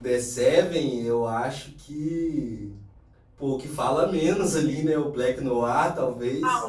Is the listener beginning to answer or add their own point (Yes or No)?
Yes